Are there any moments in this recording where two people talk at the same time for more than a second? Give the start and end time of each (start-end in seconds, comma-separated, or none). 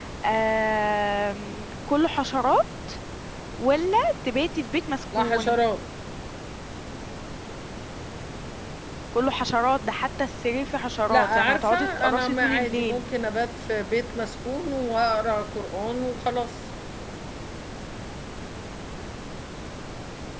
11.1-13.0